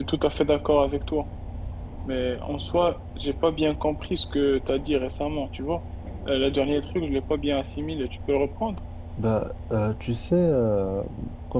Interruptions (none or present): none